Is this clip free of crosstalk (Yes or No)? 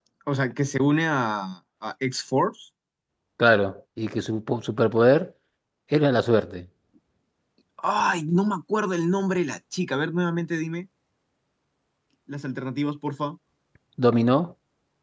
Yes